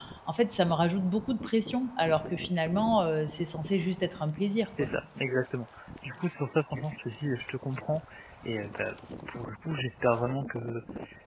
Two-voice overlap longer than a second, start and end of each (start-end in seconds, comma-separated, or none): none